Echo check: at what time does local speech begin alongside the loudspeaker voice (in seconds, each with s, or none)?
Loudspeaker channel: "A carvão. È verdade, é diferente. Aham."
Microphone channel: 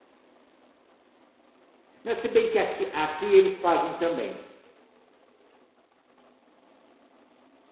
2.0 s